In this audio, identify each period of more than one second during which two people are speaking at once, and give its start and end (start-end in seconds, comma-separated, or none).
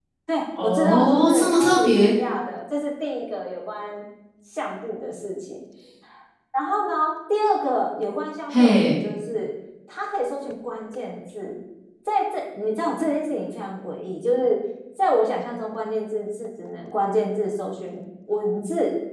0.6-2.1